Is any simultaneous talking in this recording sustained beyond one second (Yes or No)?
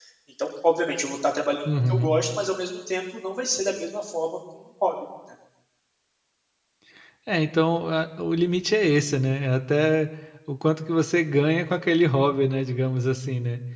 No